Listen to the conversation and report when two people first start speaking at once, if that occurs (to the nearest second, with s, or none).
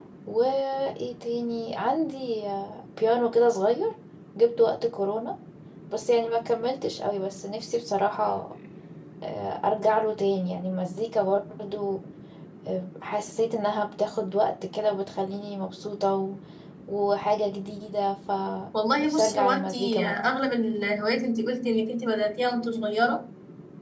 19 s